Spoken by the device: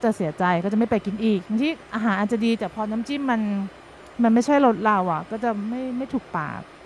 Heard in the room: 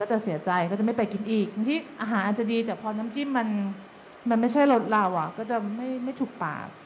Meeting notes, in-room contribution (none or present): none